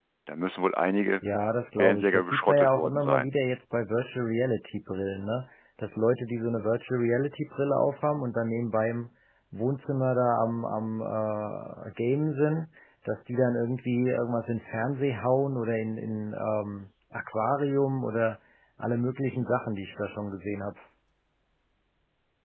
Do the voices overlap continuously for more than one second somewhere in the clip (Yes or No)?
Yes